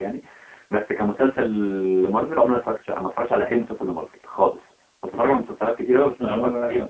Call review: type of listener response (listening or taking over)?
listening